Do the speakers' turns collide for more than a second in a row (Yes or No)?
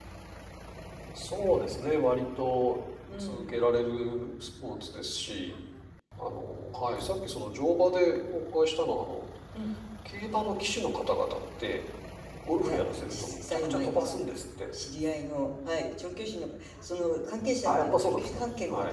Yes